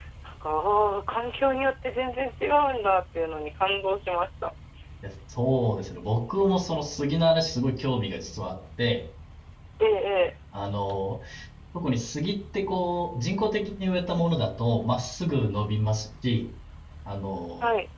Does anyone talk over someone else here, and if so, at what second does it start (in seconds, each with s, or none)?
none